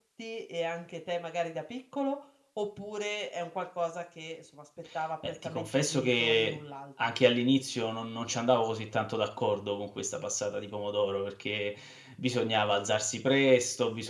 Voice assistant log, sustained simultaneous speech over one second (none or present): present